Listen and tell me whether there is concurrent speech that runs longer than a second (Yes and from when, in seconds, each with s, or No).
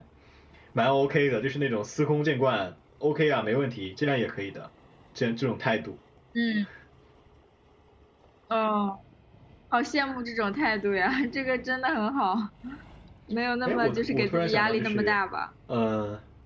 Yes, from 13.7 s